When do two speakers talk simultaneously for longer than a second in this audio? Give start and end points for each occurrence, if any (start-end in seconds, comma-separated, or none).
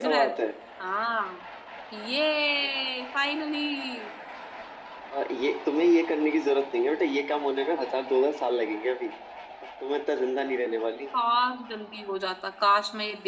none